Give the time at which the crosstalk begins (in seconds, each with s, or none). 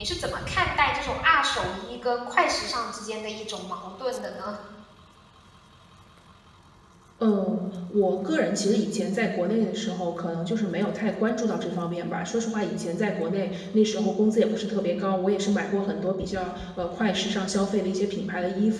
none